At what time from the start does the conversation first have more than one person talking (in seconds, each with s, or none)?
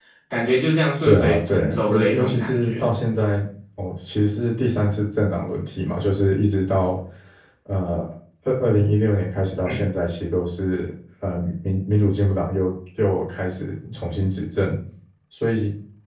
1.0 s